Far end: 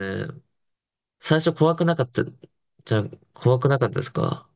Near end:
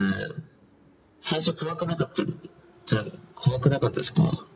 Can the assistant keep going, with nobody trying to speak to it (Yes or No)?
Yes